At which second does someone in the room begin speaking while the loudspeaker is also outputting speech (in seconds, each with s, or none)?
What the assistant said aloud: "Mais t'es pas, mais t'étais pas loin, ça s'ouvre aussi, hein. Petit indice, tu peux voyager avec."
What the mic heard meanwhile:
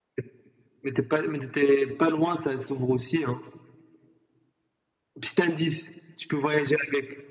none